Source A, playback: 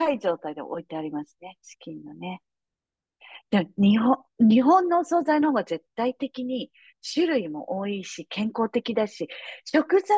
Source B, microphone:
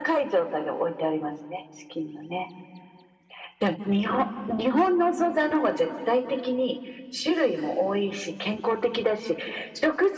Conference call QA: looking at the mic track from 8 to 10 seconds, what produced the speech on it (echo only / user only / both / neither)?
echo only